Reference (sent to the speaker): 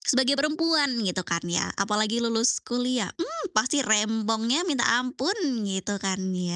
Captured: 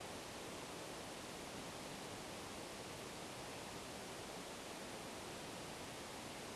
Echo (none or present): none